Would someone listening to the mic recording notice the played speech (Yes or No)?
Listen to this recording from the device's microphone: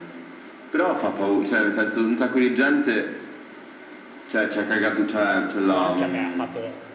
Yes